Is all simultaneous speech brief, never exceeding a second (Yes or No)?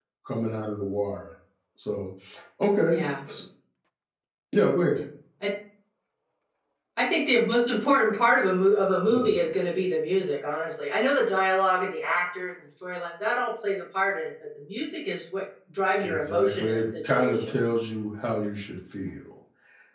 No